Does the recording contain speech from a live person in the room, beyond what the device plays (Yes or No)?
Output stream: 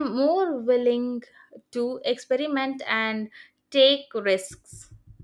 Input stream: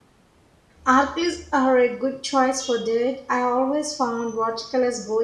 Yes